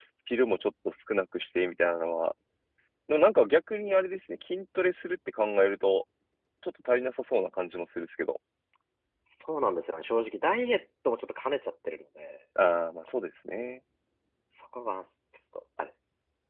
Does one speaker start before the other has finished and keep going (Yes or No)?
No